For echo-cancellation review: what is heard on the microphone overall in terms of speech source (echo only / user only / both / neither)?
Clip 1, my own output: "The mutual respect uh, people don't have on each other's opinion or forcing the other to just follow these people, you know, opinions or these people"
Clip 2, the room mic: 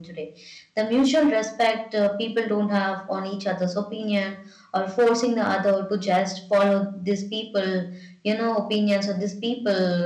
echo only